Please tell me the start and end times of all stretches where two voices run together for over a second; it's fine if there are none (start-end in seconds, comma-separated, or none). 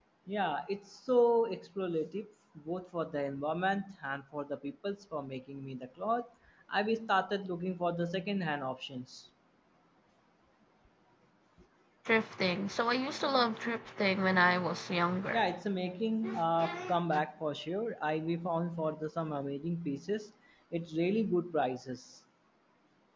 none